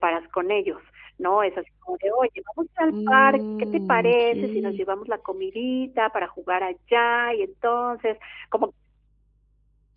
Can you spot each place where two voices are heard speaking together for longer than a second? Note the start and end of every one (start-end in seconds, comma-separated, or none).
2.9-4.8